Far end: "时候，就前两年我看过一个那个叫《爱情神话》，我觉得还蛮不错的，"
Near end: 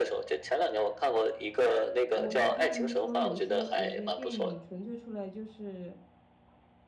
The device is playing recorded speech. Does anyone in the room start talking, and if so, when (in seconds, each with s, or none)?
2.1 s